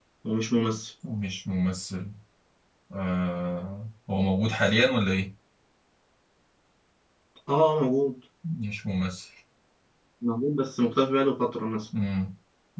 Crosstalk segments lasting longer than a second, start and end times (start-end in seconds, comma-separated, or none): none